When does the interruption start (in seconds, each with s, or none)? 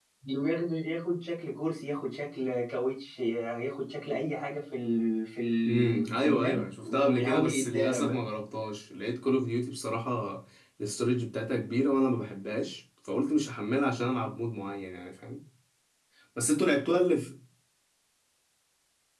5.7 s